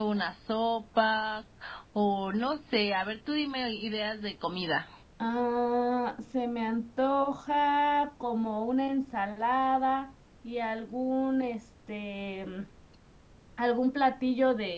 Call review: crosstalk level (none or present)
none